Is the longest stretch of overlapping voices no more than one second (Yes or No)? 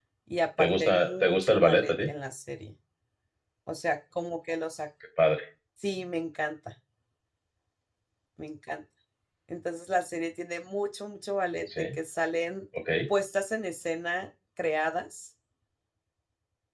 No